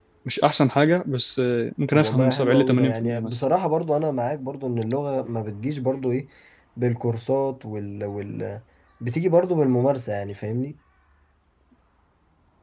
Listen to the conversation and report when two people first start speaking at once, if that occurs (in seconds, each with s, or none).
1.9 s